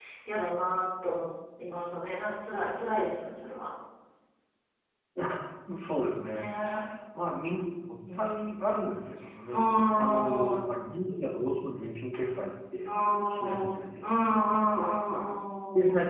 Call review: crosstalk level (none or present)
present